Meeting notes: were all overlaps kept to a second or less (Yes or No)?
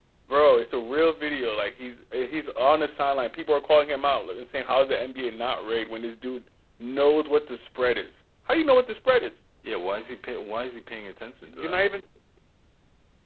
Yes